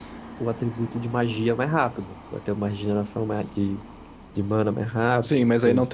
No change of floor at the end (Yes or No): No